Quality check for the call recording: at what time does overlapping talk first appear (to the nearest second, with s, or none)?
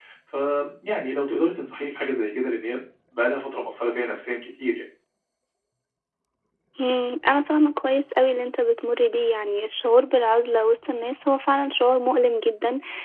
none